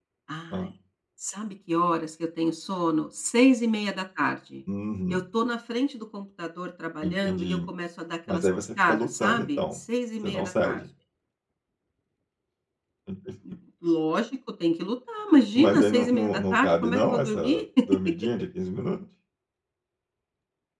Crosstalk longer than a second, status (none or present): present